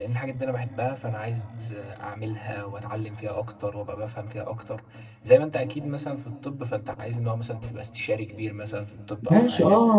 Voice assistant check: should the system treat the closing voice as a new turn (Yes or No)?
Yes